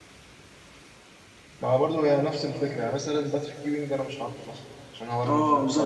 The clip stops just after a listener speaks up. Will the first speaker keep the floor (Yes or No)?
No